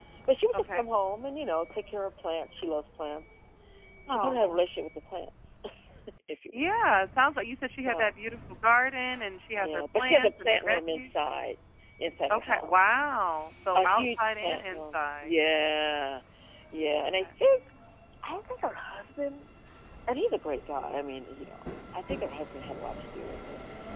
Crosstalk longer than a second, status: present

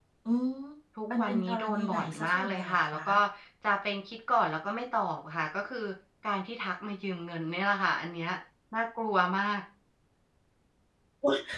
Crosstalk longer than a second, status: present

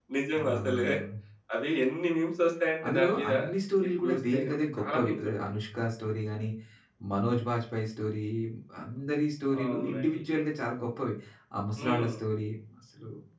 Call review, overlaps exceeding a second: present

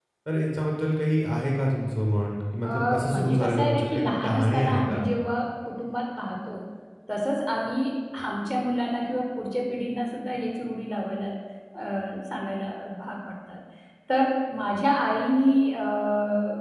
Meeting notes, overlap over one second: present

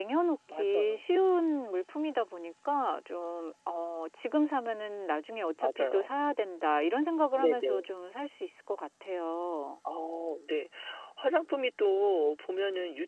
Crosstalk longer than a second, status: none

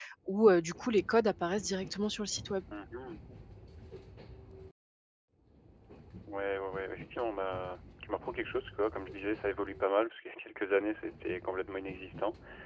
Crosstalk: none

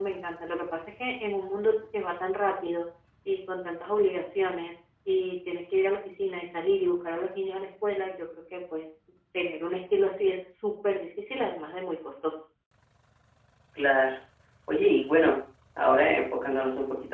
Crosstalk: none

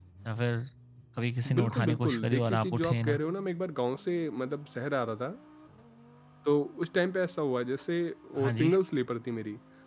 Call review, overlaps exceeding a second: present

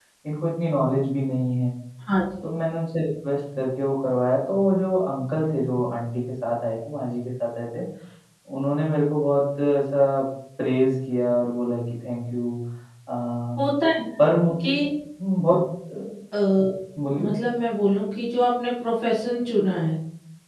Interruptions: none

